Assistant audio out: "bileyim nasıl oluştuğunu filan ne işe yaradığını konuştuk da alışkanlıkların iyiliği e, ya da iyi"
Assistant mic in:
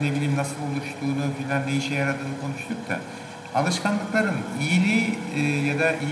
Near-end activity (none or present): none